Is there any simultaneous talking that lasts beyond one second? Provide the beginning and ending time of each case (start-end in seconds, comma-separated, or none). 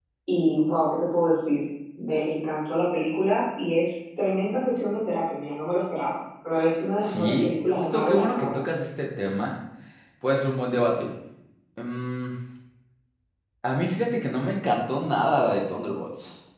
7.0-8.6